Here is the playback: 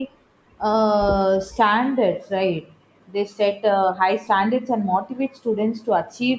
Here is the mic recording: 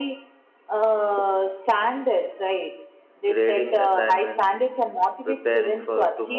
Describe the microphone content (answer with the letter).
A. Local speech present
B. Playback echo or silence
A